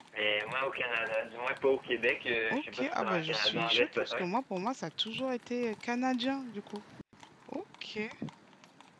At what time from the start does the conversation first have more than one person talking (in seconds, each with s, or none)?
2.5 s